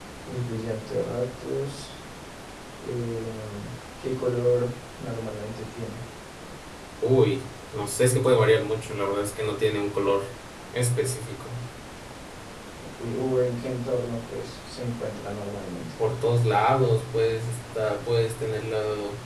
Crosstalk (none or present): none